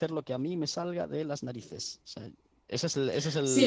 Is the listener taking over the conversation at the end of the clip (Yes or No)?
Yes